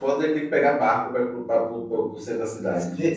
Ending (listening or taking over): taking over